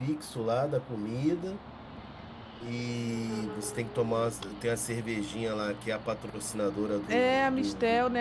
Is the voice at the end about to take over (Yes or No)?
Yes